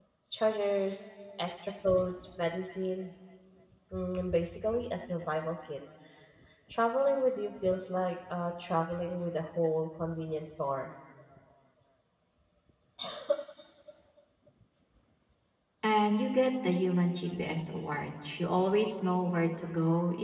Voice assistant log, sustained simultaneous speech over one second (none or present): none